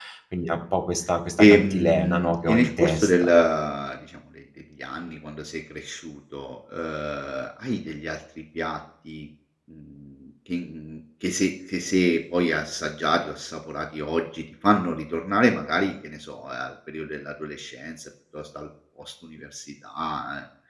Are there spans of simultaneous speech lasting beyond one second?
Yes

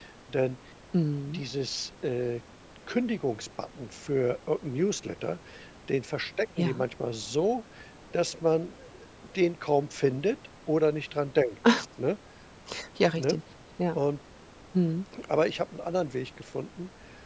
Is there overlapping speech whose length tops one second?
No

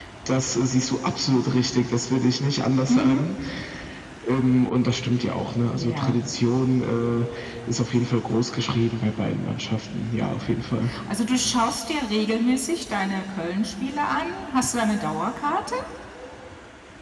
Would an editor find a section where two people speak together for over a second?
No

